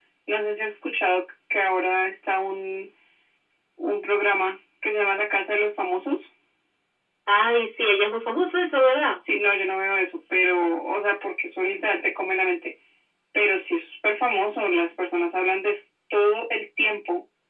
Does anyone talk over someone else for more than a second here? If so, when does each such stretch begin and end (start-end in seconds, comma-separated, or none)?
none